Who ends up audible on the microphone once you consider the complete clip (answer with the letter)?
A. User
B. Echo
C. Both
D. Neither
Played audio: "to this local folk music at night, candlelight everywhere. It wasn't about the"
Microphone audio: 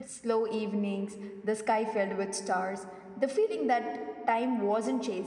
A